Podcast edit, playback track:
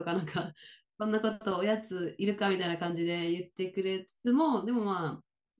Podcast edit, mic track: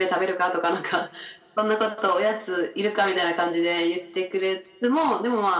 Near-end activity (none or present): none